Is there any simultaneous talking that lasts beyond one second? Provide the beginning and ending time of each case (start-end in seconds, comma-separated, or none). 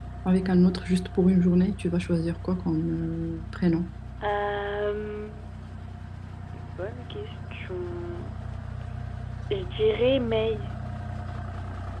none